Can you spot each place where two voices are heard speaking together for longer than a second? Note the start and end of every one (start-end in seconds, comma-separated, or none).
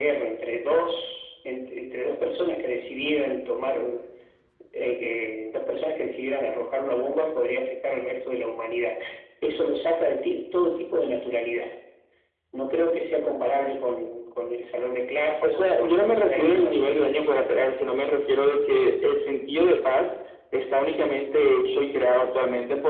15.4-17.3